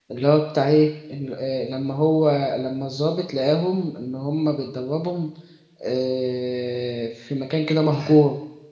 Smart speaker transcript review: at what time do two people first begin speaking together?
none

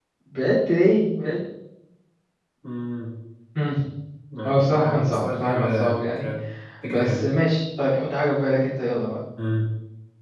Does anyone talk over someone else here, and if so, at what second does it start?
4 s

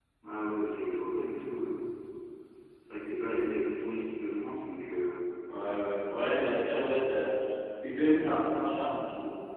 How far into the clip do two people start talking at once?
none

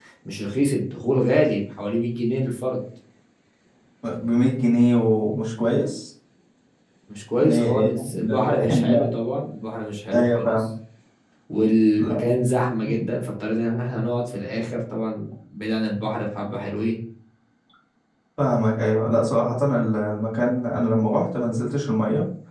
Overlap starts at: 7 s

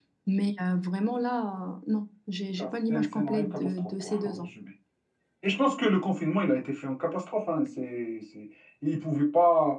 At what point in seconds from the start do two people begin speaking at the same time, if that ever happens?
3 s

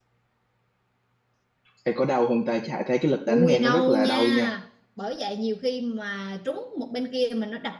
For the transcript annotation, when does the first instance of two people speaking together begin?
3 s

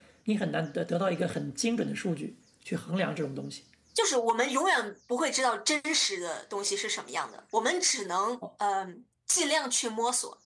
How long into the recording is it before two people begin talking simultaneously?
none

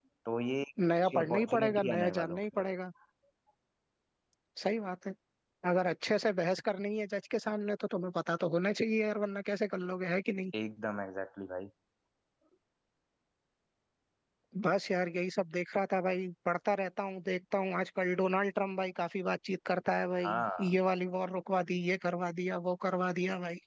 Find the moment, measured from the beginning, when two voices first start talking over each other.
1 s

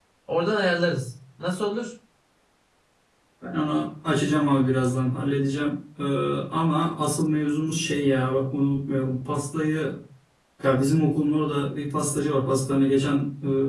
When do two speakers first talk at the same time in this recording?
none

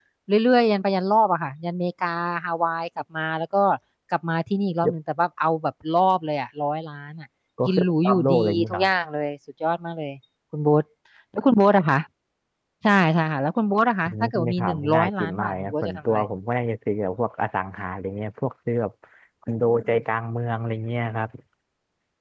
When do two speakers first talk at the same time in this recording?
8 s

